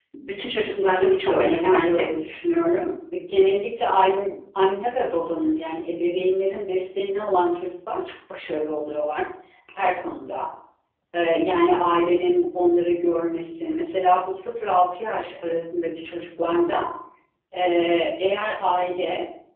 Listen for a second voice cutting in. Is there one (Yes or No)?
Yes